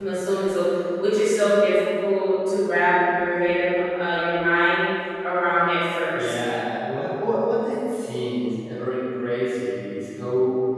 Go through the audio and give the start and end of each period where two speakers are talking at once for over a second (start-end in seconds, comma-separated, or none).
none